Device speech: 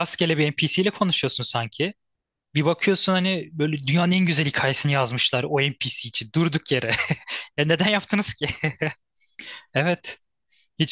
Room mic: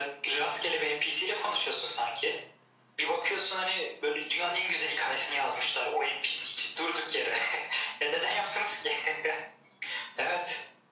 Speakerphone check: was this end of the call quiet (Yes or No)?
Yes